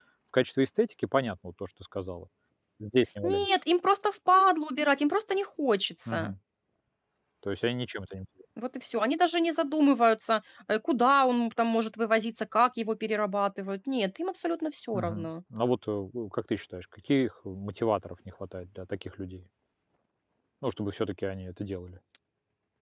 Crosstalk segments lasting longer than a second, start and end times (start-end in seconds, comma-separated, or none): none